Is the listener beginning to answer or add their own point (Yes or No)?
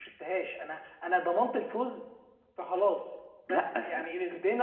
No